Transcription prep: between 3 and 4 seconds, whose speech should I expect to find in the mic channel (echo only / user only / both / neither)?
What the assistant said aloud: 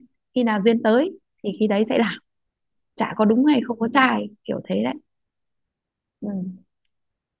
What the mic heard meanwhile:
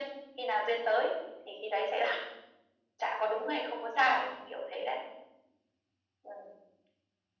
echo only